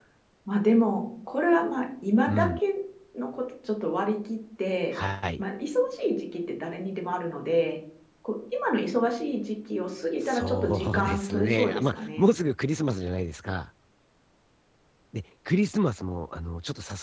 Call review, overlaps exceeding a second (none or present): present